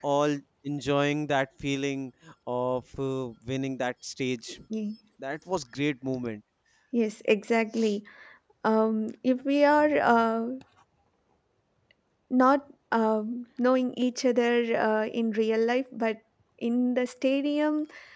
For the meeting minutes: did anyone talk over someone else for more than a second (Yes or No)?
No